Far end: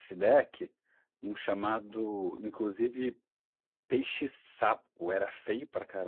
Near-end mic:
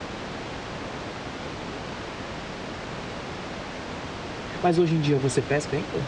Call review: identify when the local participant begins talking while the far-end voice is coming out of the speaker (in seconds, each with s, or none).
4.6 s